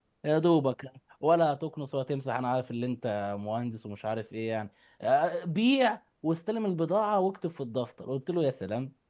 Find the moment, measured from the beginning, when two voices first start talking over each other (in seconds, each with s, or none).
none